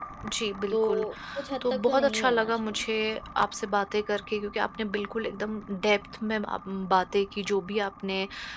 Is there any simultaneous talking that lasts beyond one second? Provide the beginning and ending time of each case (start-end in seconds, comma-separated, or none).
1.6-2.8